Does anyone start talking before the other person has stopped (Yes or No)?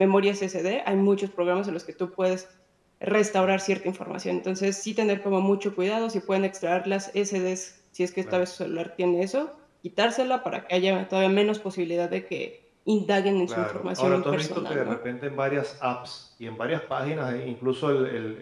Yes